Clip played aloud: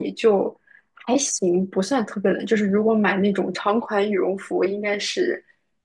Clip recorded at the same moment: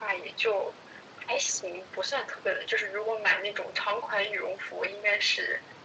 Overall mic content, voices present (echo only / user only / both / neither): echo only